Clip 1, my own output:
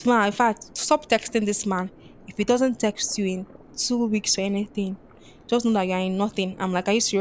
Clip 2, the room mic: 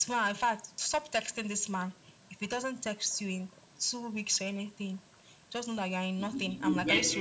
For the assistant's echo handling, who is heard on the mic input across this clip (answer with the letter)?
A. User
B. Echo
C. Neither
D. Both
D